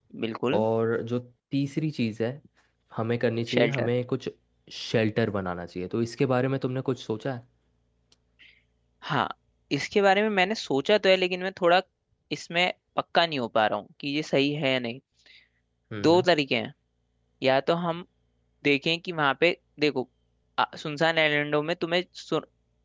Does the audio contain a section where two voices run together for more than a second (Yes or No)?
No